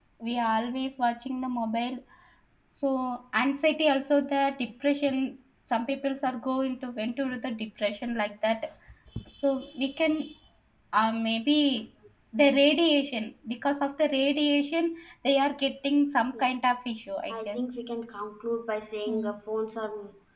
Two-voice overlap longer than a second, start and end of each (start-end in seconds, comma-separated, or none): none